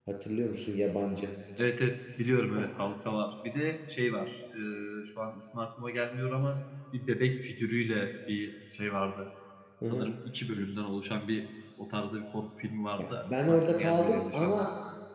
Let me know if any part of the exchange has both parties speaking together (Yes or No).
Yes